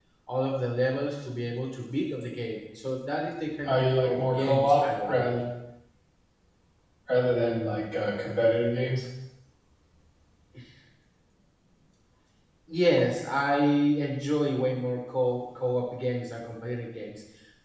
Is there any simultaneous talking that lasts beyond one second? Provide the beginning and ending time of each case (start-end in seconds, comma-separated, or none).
3.7-5.3